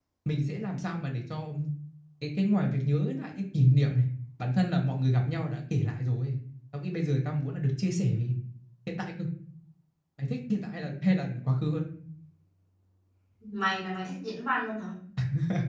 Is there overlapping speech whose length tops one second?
No

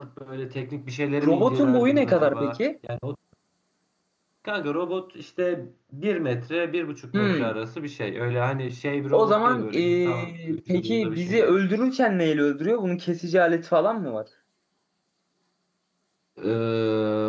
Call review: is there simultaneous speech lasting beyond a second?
Yes, from 1.2 s

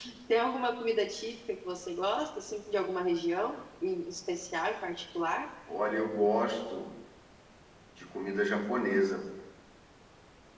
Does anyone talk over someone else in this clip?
No

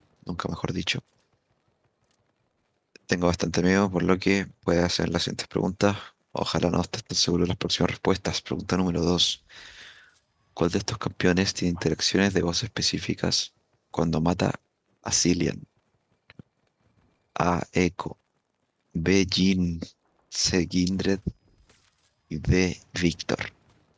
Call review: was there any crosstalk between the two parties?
No

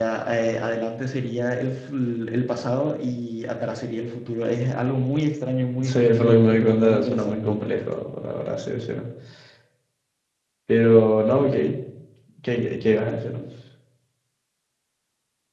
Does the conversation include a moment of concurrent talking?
Yes, from 5.8 s

